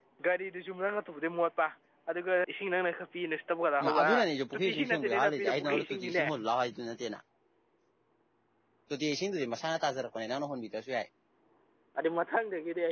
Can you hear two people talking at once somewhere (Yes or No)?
Yes